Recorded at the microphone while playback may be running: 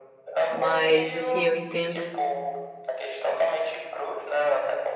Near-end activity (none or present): present